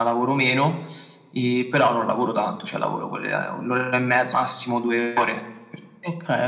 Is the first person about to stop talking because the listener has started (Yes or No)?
Yes